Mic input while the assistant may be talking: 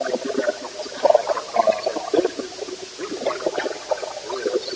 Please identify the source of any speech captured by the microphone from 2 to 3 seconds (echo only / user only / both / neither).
echo only